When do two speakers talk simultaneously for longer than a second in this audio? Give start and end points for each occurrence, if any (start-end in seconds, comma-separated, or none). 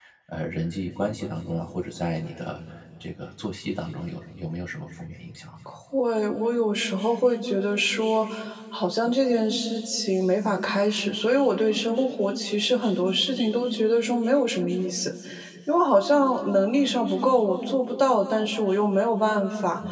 none